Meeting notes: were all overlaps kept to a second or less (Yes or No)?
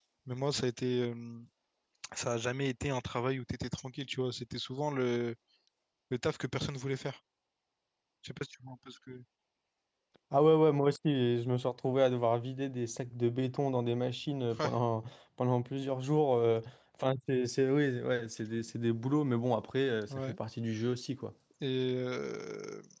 Yes